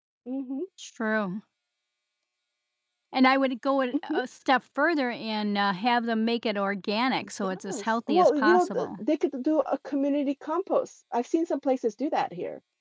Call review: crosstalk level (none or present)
present